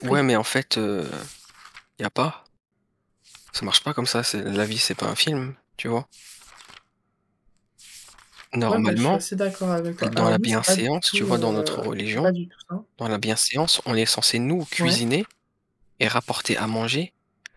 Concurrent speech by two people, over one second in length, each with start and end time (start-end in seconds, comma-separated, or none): 10.1-12.3